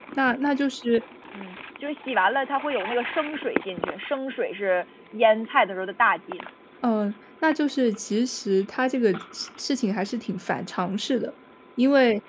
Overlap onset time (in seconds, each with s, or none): none